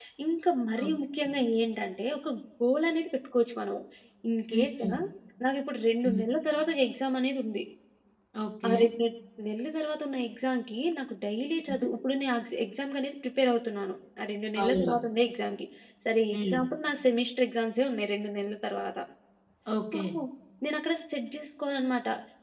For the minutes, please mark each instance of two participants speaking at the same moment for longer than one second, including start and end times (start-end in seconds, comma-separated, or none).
none